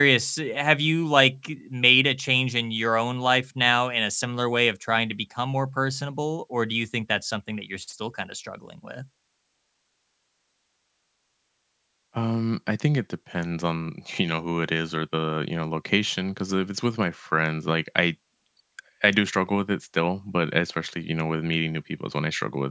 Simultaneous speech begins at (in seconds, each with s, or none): none